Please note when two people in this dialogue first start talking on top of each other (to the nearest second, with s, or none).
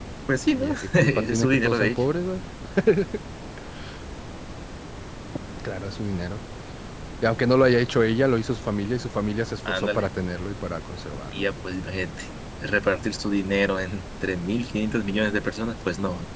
1 s